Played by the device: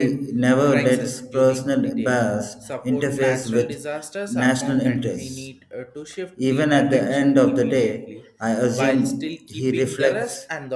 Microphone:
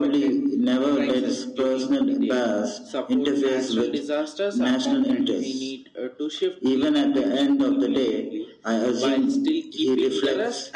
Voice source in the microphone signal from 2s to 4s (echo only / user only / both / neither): echo only